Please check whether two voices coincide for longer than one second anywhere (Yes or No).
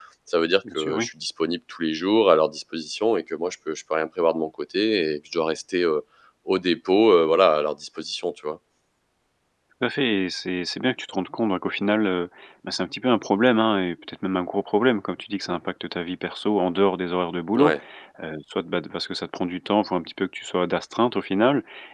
No